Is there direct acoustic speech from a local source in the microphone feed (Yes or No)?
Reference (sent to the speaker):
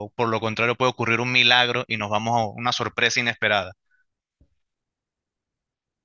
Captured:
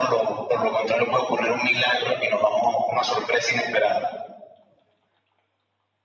No